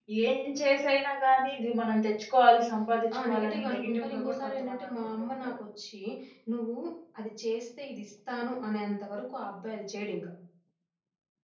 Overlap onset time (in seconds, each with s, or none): 3.1 s